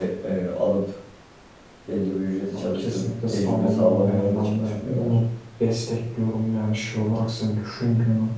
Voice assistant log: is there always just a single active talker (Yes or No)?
No